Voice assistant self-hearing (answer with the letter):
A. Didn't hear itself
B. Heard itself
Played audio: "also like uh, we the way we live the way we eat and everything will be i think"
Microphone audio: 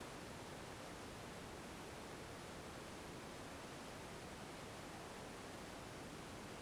A